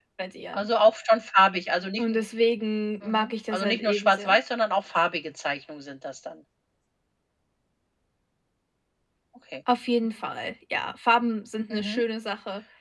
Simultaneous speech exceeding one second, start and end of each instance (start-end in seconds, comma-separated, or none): 3.0-4.4